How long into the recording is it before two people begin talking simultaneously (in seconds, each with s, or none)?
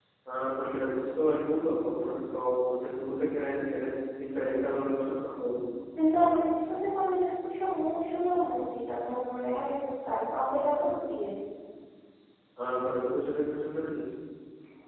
none